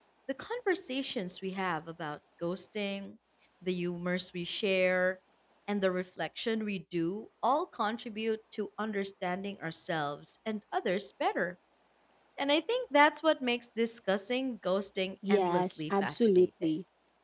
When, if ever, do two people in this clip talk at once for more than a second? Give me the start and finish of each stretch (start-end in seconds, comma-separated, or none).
15.3-16.7